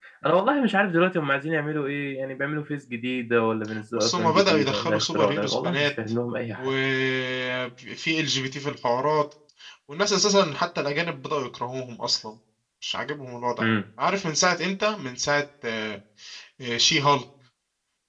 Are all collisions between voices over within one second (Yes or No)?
No